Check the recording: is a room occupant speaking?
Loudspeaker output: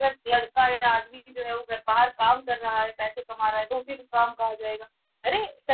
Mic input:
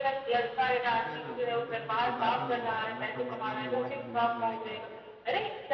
Yes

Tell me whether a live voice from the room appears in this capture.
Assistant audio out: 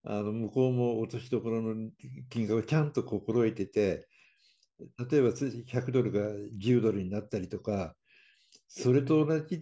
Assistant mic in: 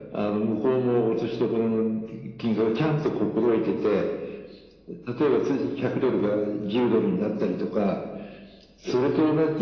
No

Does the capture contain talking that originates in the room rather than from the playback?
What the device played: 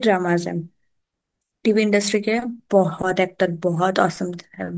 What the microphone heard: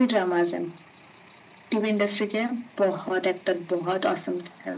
No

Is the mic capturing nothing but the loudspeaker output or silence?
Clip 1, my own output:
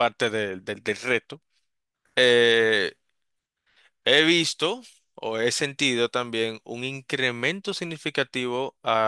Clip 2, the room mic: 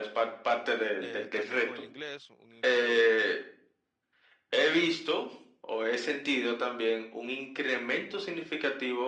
No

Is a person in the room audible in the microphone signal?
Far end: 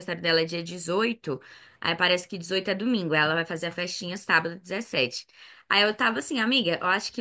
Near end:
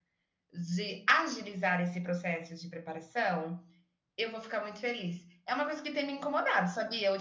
Yes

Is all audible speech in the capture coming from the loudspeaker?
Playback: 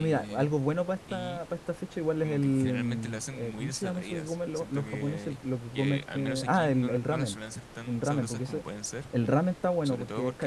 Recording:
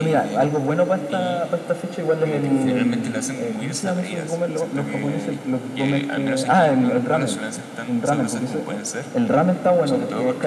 Yes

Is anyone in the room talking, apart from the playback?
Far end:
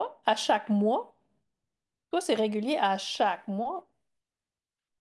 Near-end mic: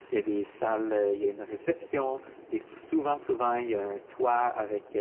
Yes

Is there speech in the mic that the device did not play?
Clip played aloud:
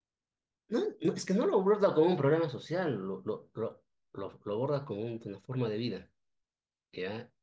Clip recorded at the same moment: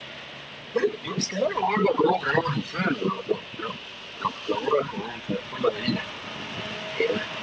No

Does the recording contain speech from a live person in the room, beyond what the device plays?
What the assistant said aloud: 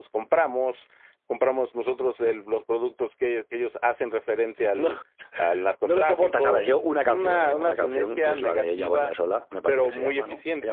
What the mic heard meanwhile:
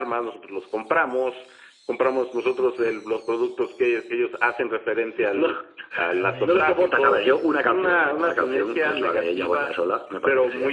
Yes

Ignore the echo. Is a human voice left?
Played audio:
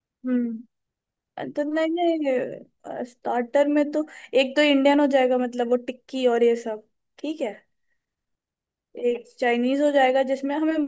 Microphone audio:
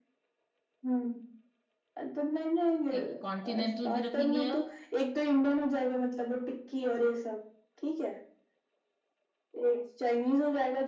Yes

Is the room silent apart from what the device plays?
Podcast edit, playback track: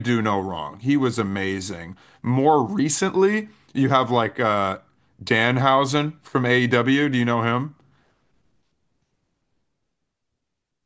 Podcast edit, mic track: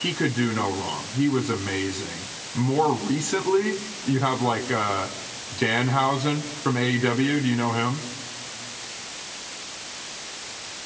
Yes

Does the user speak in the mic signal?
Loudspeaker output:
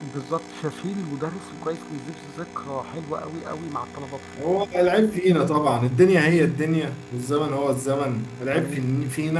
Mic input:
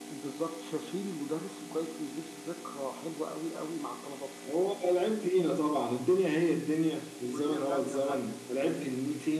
Yes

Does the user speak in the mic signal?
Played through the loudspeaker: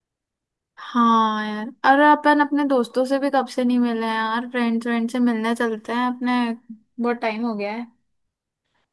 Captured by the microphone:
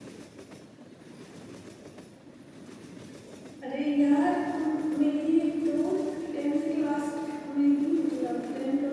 Yes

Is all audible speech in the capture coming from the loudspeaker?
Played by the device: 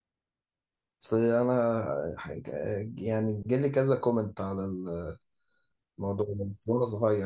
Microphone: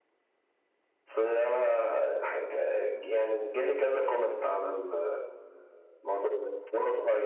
Yes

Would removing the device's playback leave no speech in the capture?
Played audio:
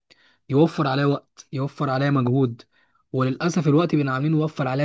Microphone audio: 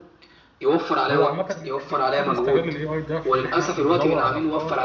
No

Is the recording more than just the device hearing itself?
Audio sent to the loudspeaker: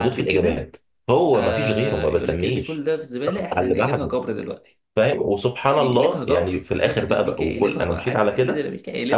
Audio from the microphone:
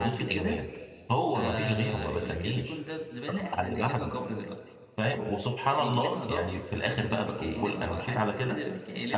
Yes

